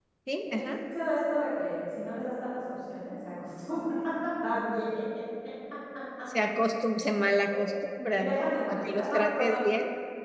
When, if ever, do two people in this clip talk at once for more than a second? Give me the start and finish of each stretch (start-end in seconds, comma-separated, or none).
8.1-9.6